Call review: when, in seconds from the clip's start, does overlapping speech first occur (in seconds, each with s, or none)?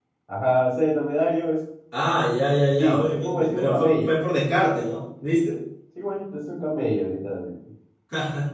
2.8 s